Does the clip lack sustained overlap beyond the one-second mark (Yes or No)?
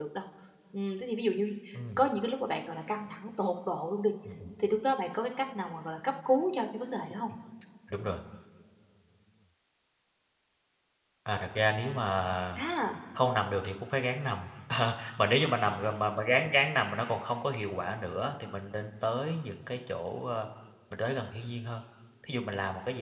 Yes